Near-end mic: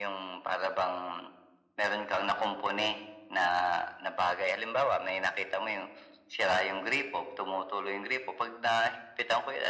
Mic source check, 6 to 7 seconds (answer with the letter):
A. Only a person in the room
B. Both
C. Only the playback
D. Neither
C